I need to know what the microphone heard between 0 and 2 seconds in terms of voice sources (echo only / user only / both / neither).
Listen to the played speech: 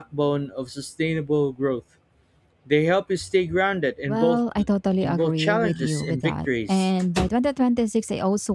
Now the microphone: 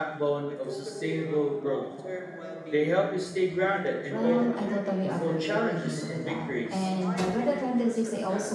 both